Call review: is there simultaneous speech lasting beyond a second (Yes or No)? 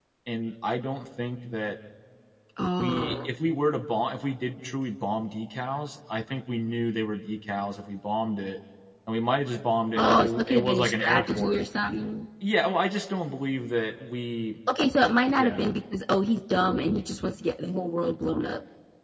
Yes